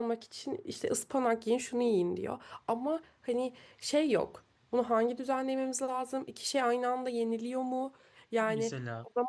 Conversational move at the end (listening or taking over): listening